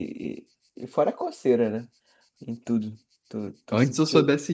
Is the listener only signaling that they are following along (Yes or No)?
No